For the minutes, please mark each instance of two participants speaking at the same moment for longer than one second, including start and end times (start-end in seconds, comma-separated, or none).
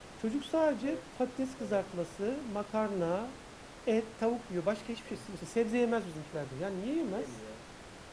none